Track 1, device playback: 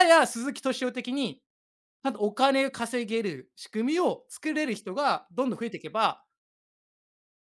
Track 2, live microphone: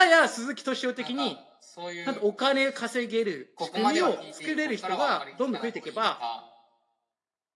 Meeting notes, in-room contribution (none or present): present